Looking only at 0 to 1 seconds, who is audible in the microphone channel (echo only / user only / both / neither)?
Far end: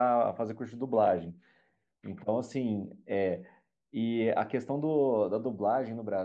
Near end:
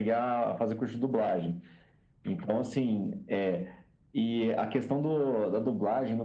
echo only